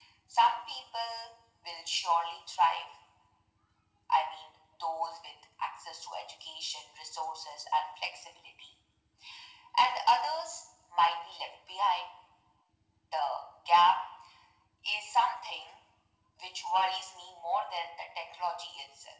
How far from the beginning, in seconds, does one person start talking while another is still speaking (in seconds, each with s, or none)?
none